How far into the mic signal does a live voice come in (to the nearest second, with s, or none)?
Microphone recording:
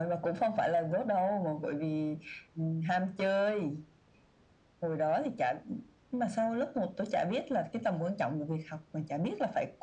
none